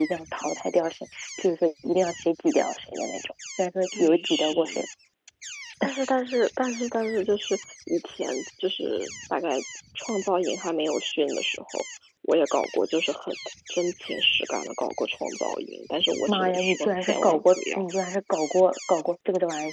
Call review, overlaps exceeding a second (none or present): present